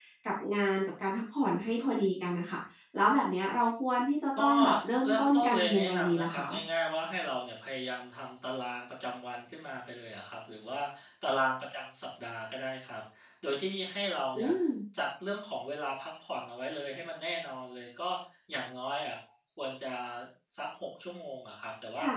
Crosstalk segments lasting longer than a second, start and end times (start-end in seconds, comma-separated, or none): 5.0-6.5